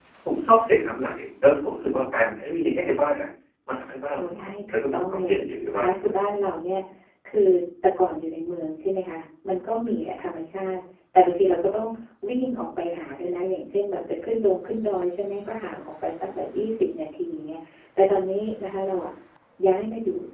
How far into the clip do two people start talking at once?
4.2 s

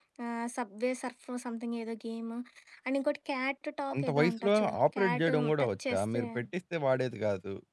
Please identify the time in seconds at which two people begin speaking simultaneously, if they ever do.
3.9 s

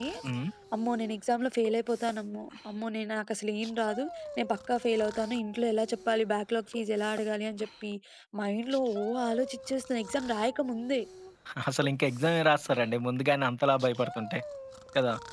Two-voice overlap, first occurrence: none

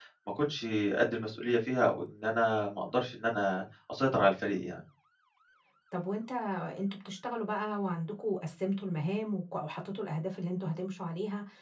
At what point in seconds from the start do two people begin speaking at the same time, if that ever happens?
none

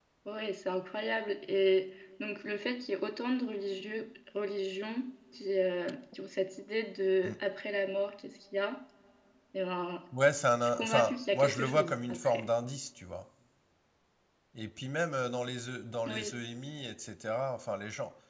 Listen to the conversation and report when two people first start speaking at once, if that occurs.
10.6 s

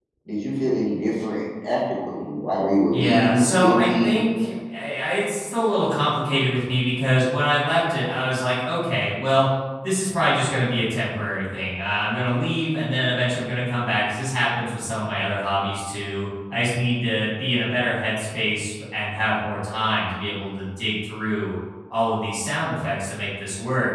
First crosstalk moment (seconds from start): 2.9 s

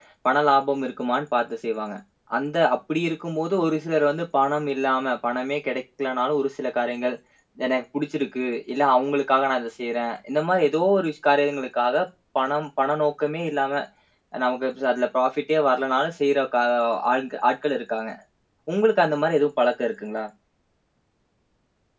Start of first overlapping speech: none

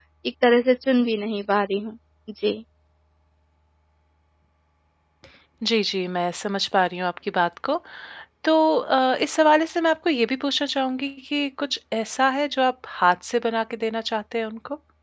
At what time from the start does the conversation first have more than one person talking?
none

